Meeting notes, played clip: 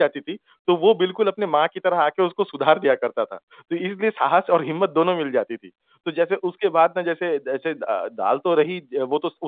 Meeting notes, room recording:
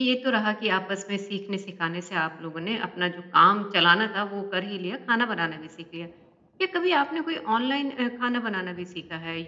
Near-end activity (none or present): present